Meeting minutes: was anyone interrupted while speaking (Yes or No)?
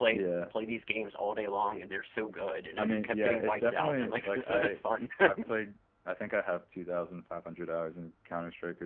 Yes